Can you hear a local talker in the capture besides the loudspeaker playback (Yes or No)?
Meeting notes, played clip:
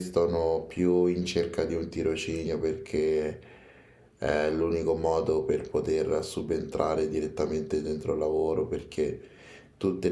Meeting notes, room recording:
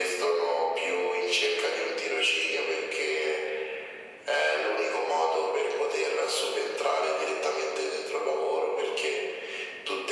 No